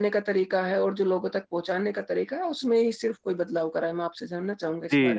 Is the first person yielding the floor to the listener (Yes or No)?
Yes